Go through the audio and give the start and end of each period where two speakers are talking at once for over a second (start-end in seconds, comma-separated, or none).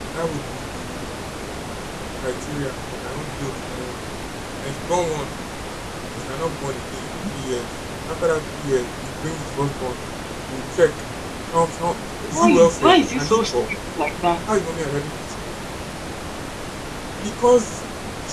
12.3-13.6